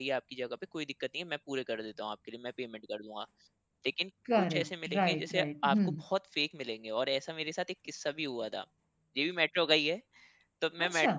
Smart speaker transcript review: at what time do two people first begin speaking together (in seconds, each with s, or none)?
4.4 s